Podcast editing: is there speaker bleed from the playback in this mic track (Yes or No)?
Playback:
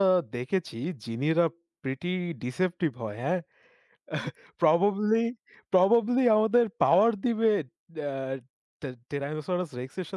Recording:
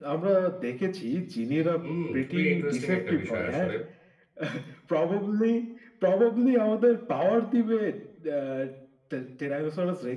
Yes